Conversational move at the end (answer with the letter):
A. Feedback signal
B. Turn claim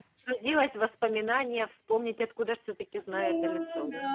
B